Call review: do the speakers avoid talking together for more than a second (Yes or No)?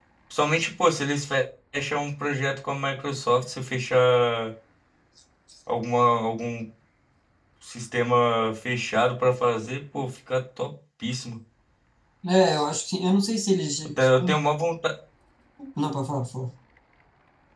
Yes